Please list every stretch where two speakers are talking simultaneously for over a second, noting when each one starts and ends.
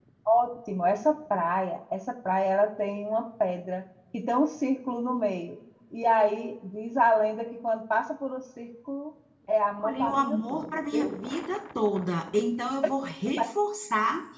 9.8-11.1

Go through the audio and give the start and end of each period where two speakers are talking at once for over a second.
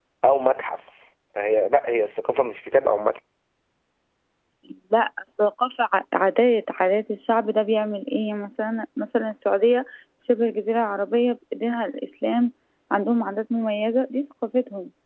none

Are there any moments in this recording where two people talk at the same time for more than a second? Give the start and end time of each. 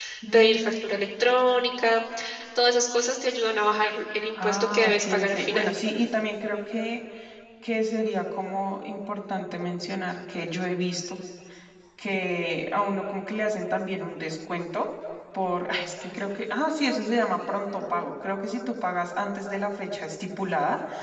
4.4-5.7

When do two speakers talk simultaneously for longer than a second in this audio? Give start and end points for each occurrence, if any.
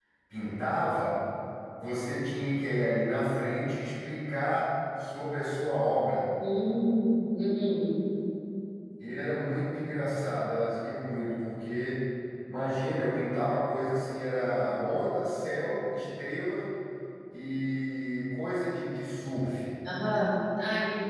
none

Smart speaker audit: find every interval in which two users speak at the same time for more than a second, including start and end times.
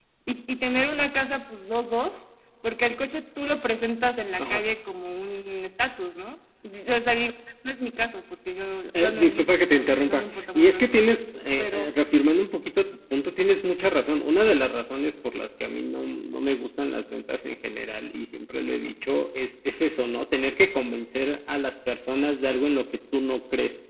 8.9-11.0

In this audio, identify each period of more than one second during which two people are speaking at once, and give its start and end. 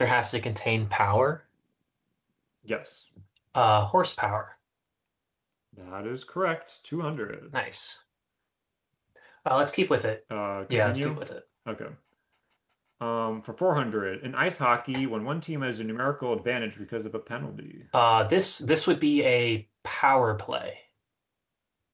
none

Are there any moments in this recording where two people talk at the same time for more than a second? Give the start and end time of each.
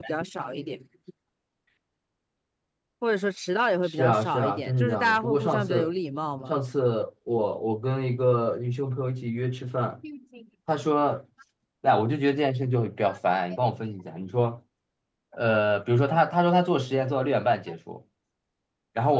3.8-5.9

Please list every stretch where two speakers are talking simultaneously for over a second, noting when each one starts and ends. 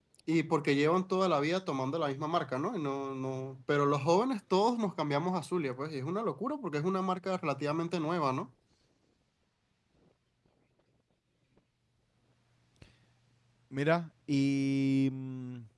none

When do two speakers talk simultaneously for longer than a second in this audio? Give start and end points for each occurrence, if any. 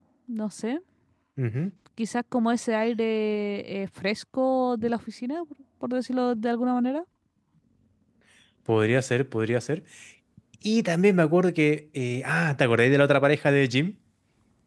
none

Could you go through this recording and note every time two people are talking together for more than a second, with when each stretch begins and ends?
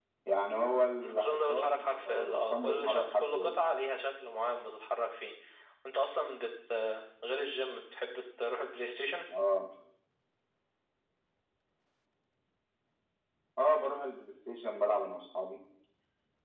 1.0-3.5

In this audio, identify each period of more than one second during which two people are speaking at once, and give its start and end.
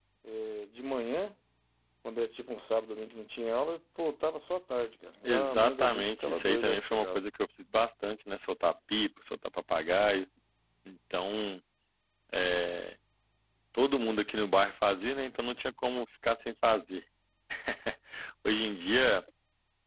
5.2-7.2

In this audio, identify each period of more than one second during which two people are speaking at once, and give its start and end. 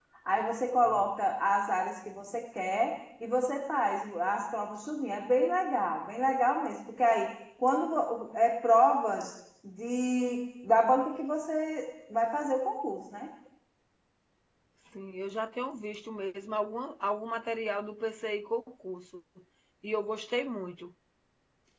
none

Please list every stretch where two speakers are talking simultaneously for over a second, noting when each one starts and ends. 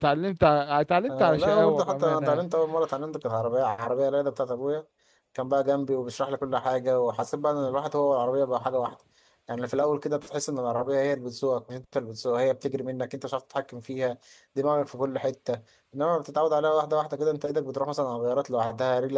1.1-2.4

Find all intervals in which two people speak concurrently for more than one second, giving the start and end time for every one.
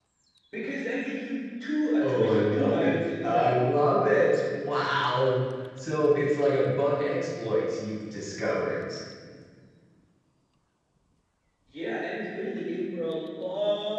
2.0-3.7

